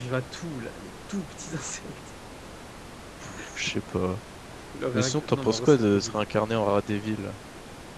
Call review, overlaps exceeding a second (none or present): present